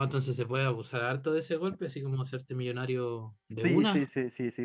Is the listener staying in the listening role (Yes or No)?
No